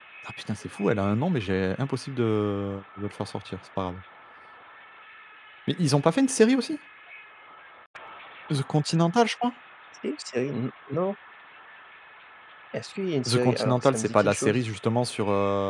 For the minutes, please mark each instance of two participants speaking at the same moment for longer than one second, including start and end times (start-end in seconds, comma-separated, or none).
13.3-14.6